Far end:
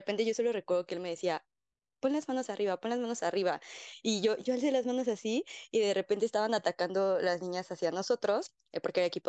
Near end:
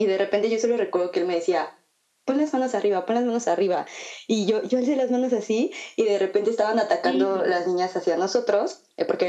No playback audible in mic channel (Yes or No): No